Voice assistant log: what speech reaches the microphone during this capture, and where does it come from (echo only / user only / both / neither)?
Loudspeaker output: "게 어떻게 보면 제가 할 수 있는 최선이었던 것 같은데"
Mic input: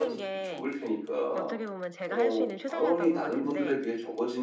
both